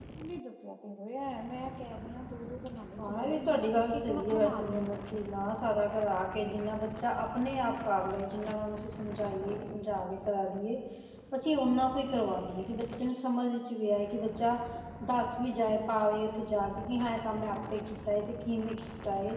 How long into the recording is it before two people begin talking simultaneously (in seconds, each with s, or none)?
3.0 s